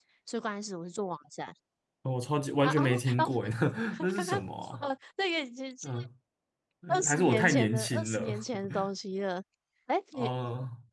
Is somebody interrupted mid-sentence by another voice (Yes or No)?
Yes